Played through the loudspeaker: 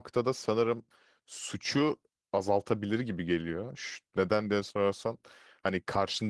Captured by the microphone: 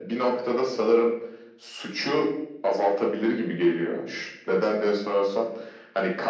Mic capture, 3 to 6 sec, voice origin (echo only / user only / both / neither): echo only